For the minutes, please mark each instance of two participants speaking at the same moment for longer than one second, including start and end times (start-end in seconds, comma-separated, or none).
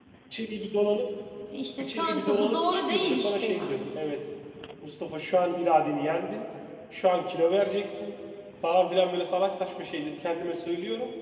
1.8-4.0